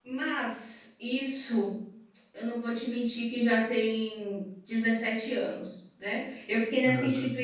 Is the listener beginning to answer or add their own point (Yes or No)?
No